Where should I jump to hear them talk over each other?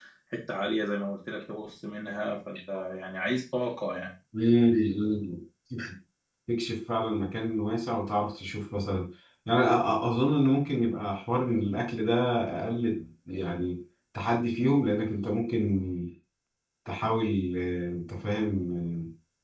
none

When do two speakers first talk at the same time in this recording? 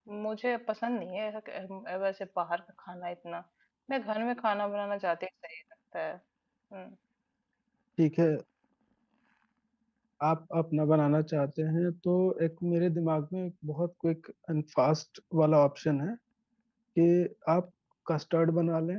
none

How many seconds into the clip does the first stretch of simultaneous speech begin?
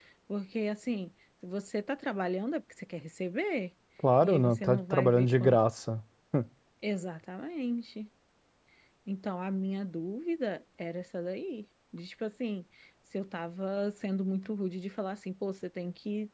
4.2 s

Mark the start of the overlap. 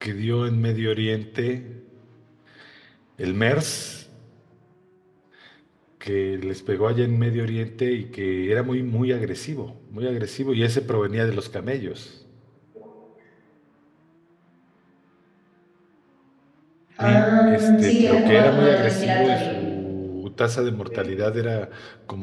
17.0 s

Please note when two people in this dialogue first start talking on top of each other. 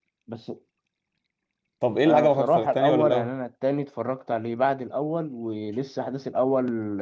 2.0 s

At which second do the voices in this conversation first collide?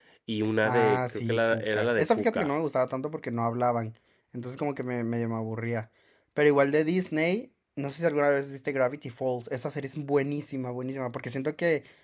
0.6 s

